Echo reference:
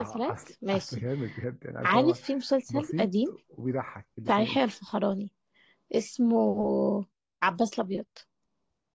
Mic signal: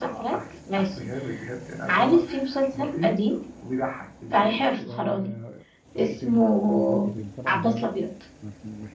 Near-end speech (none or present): present